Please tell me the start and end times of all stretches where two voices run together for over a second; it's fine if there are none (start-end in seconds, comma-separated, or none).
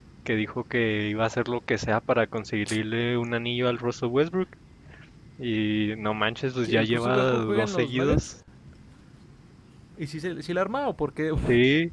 6.6-8.2